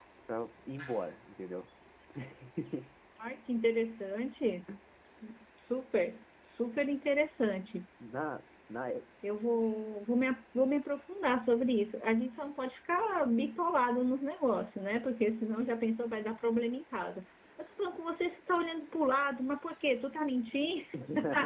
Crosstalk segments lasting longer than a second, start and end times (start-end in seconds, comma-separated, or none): none